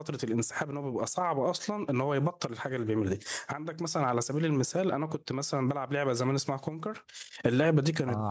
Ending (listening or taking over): listening